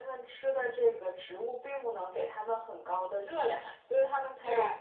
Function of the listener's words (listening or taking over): listening